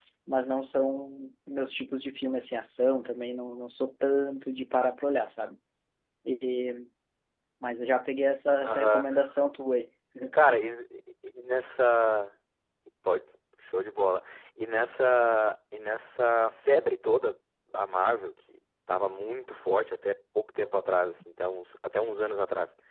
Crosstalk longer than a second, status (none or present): none